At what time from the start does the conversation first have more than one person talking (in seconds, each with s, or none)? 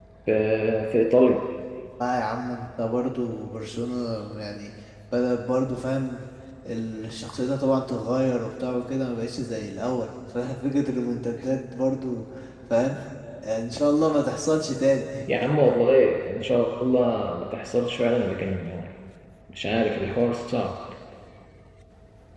none